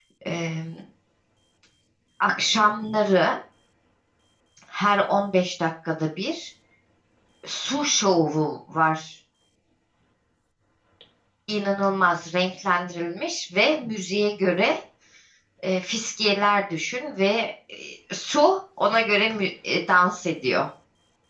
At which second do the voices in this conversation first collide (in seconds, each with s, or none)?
none